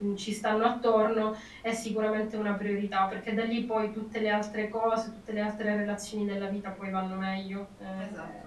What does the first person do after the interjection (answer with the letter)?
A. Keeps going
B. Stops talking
A